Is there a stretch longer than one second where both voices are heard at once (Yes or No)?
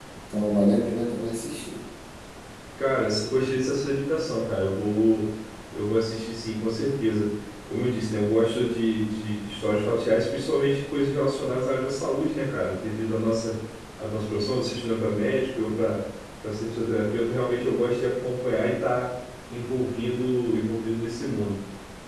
No